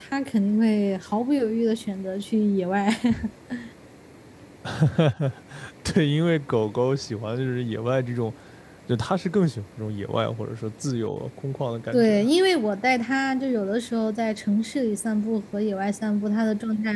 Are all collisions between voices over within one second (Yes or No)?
Yes